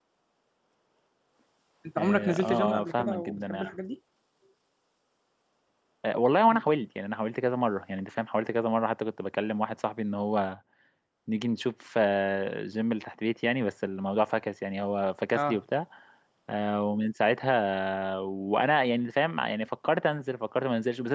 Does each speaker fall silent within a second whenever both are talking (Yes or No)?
No